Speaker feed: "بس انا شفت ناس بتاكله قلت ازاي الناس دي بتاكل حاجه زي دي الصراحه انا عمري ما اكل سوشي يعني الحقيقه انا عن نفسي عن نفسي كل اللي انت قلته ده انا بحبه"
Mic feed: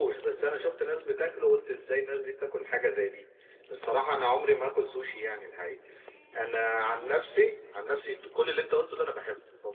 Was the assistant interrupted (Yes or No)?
No